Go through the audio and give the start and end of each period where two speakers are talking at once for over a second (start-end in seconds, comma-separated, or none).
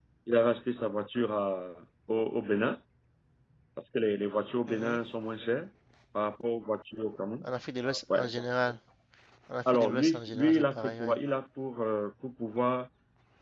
9.7-11.1